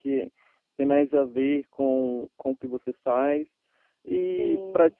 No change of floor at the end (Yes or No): Yes